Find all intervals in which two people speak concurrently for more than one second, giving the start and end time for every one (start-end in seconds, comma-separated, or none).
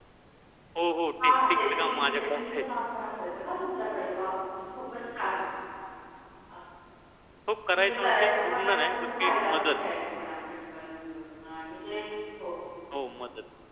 1.2-2.8, 7.7-9.8